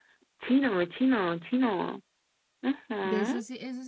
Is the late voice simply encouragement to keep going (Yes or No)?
No